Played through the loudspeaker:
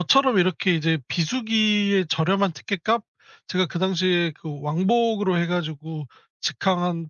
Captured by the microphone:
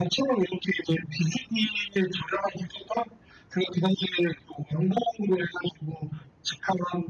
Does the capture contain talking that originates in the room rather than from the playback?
No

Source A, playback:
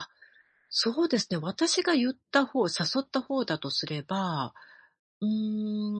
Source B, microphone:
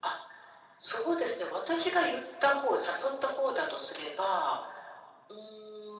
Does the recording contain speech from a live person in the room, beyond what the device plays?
No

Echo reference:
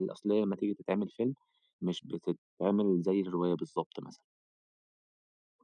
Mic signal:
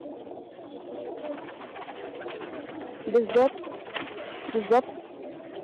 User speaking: Yes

